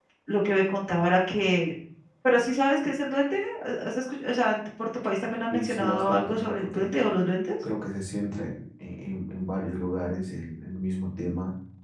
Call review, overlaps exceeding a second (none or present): present